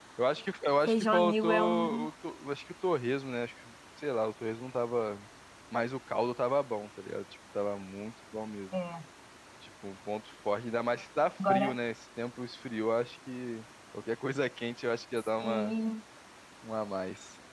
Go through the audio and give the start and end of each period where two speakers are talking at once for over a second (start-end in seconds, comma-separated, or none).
0.9-2.1